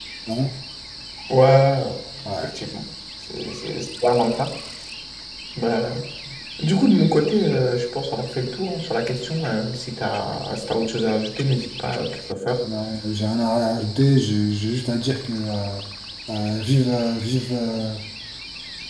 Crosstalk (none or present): none